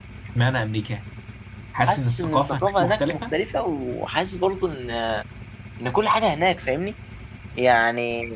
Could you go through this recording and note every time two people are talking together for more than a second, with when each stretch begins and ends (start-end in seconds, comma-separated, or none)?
1.8-3.3